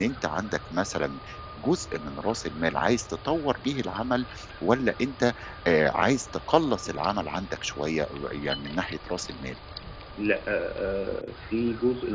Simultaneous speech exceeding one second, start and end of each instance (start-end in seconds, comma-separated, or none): none